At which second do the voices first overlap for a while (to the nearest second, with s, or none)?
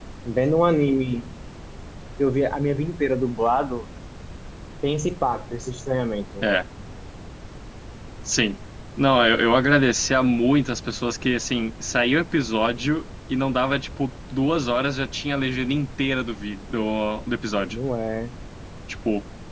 none